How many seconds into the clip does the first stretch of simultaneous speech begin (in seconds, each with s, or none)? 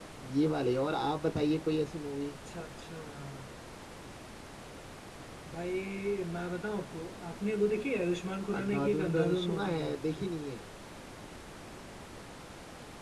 8.5 s